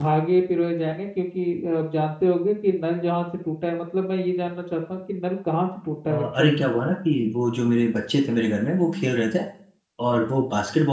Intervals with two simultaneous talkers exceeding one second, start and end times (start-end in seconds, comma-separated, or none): none